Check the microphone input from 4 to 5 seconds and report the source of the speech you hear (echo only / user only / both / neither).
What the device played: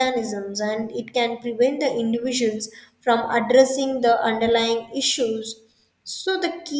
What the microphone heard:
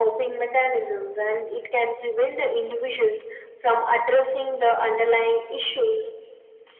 echo only